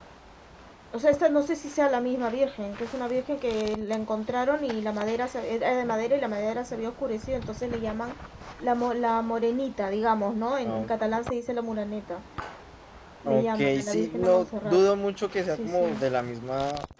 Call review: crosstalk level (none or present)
present